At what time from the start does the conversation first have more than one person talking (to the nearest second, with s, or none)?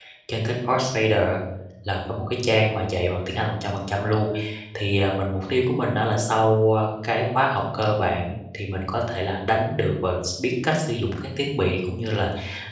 none